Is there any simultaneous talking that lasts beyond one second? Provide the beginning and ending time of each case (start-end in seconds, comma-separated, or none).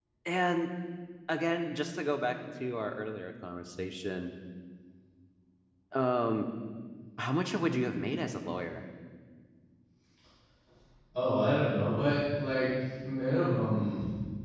none